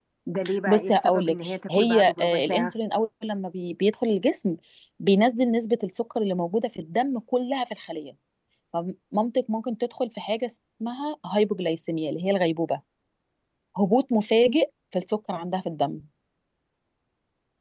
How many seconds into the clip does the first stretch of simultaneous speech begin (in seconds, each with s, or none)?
0.7 s